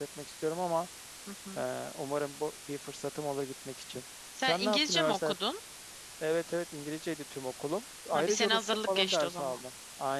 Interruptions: present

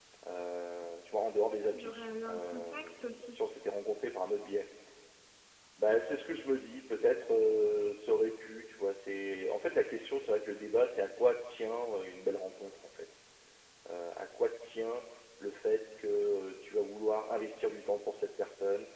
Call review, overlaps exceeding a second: present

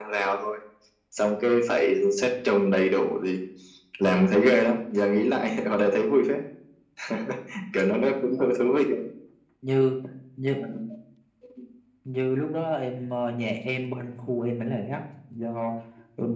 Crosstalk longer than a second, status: none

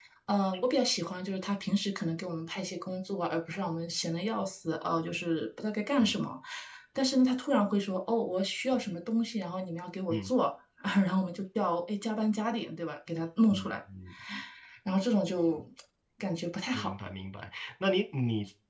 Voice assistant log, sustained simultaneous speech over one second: none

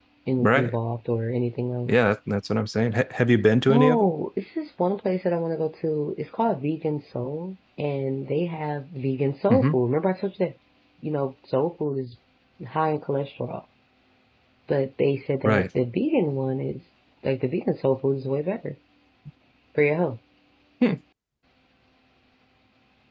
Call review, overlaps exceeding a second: none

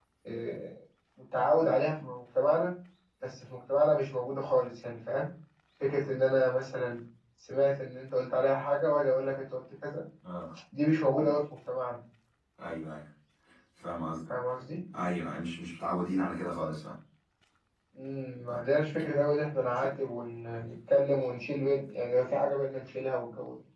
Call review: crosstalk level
none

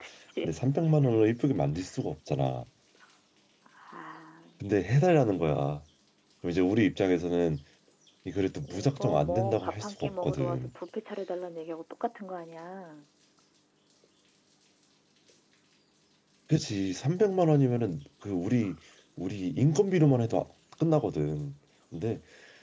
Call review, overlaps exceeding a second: present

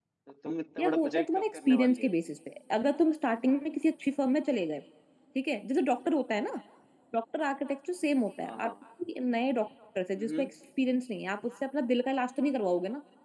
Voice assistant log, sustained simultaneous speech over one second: present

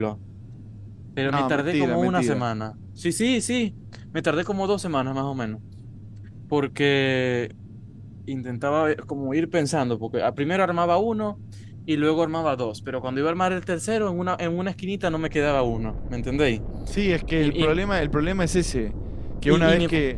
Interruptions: present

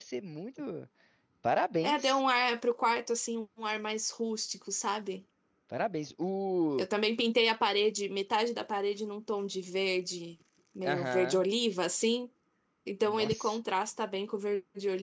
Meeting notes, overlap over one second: none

